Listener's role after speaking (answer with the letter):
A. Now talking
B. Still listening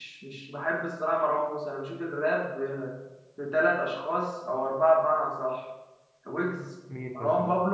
B